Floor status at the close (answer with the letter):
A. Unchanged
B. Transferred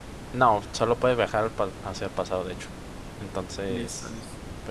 B